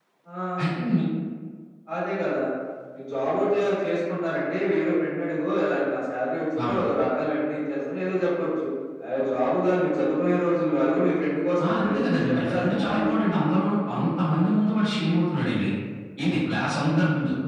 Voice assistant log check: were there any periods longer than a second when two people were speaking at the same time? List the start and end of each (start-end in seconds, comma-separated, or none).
11.6-13.5